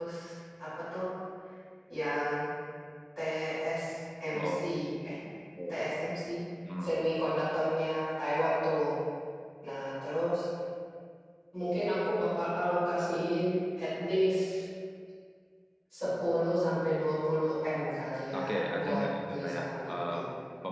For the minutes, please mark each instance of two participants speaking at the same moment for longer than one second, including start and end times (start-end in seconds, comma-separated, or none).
18.4-20.1